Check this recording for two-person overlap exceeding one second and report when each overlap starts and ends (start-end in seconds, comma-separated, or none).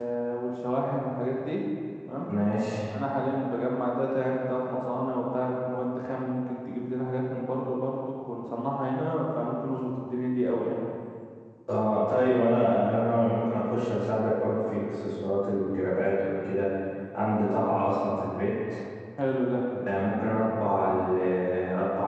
none